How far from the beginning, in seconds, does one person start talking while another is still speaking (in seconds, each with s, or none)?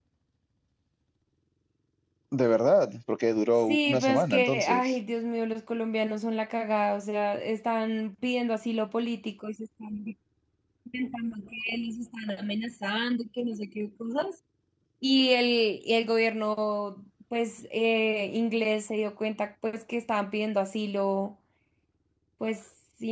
3.7 s